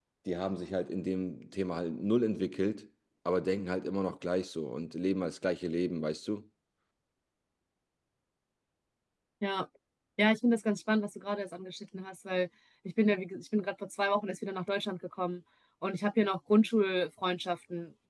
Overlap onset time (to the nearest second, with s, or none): none